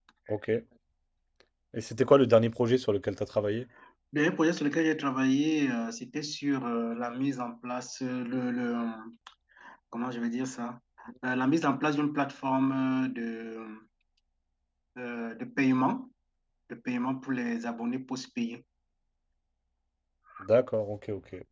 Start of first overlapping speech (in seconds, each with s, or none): none